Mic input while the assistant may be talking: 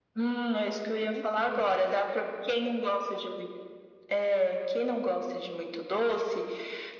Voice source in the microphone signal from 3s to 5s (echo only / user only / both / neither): echo only